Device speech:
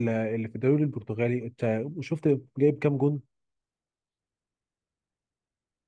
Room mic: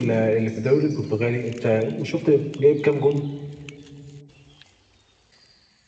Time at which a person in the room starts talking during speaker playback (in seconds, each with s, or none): none